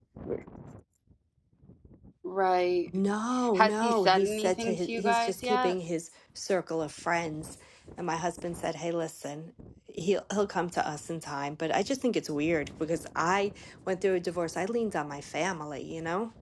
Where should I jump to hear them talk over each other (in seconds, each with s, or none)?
3.5 s